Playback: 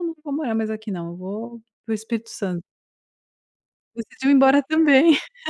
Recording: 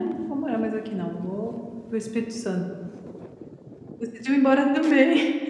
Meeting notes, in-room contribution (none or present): none